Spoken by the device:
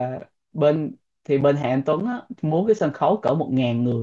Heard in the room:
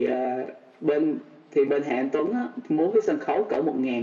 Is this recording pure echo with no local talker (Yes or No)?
Yes